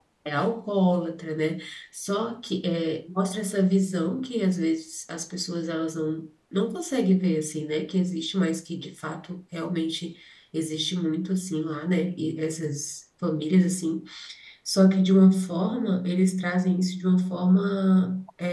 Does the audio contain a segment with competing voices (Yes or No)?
No